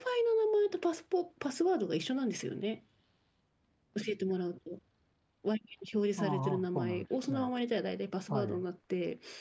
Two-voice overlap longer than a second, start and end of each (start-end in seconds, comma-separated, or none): 6.2-7.5